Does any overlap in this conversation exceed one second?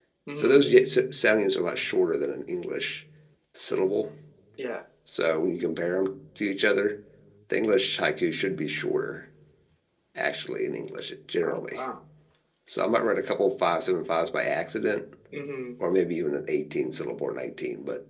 No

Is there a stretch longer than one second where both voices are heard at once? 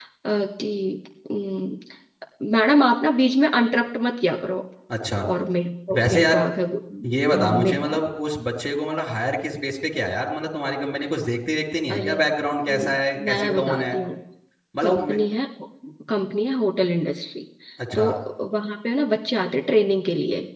Yes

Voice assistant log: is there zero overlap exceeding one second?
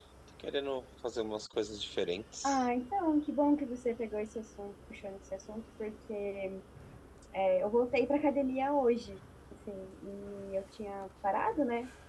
Yes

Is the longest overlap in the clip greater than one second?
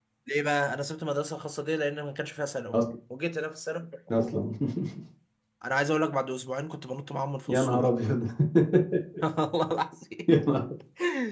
No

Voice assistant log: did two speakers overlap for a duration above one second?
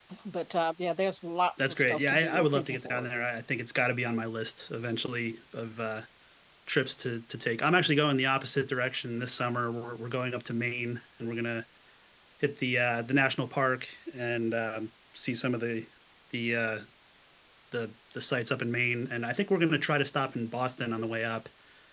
Yes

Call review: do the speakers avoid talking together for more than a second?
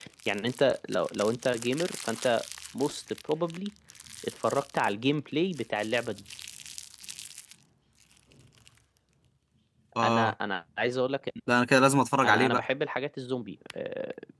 Yes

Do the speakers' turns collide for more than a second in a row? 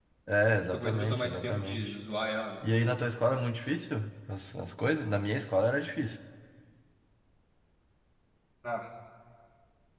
Yes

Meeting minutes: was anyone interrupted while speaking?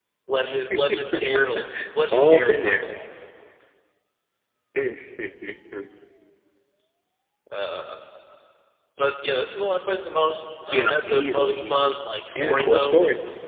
Yes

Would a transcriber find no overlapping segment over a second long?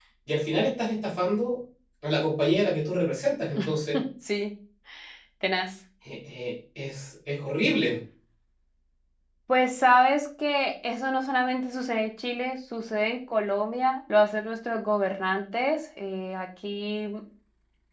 Yes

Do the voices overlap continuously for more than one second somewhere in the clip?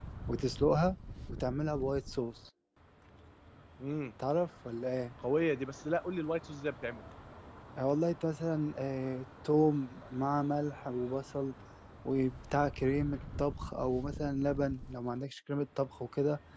No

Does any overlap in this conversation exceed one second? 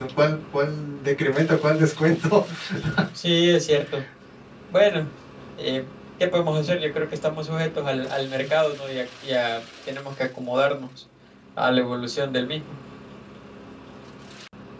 No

